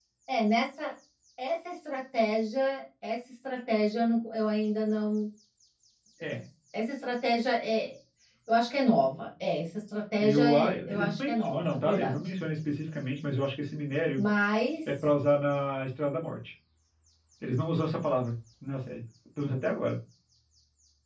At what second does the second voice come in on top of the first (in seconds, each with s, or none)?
10.2 s